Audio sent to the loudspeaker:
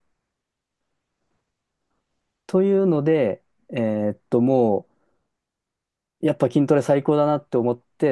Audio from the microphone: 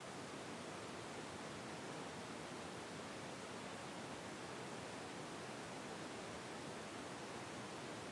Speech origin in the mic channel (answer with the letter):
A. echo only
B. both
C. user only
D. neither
D